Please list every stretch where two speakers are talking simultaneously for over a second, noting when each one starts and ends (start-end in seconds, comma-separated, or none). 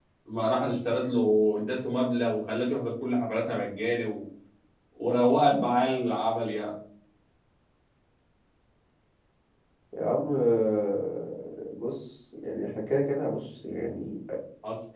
none